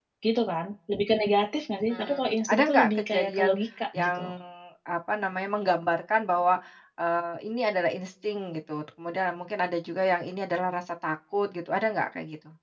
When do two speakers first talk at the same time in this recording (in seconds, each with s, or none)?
1.9 s